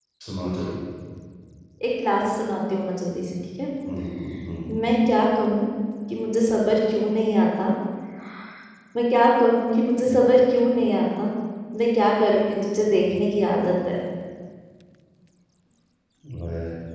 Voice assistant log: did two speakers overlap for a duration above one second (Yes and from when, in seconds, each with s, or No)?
No